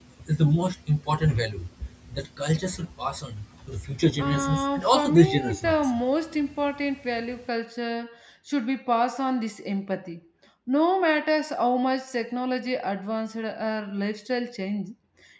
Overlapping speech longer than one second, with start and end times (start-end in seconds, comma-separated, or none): 4.2-6.0